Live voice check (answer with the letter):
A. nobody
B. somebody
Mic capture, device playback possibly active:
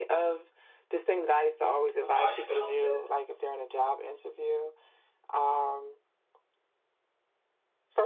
B